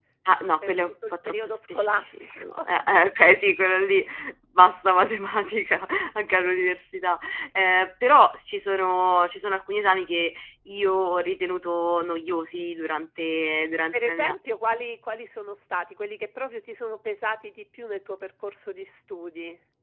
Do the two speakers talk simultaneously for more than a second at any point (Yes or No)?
Yes